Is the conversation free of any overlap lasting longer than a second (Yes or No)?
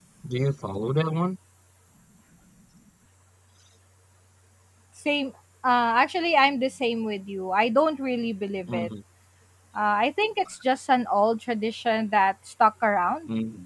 Yes